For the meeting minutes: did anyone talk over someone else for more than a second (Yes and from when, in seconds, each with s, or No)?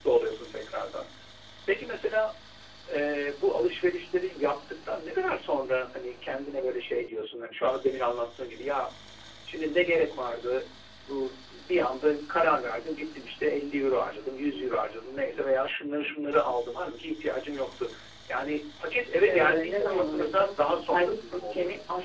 Yes, from 19.3 s